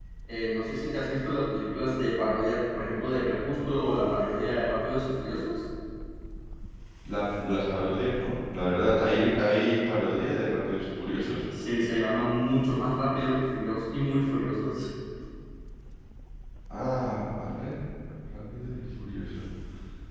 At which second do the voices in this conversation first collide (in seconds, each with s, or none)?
none